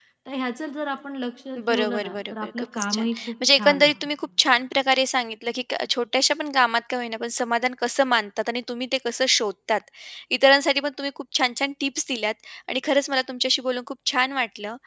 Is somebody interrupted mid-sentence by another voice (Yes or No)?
Yes